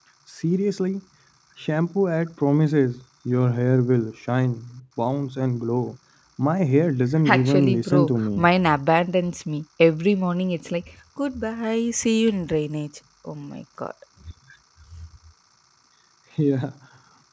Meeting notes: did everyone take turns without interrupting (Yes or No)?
No